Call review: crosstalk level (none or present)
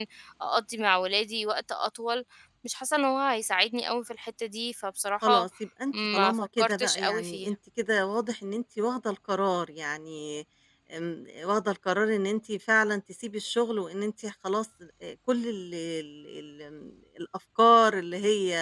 present